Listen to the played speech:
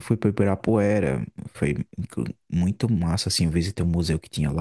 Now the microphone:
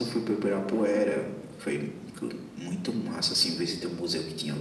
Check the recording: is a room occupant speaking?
Yes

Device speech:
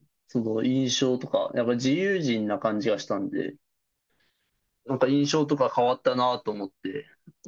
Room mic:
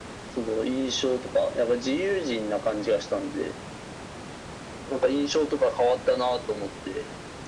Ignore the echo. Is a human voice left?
No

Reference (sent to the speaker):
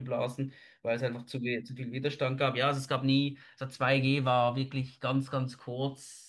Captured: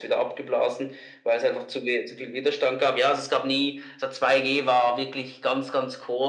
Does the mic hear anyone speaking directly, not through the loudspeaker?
No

